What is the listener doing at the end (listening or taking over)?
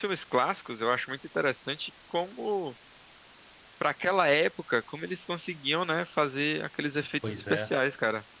listening